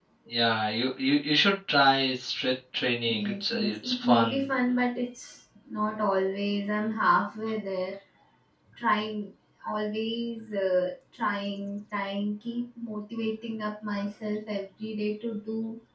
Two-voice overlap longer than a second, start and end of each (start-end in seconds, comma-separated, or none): 3.1-4.4